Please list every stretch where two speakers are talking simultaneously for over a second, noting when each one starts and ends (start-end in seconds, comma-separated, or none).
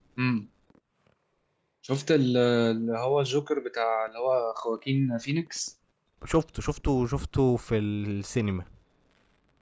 none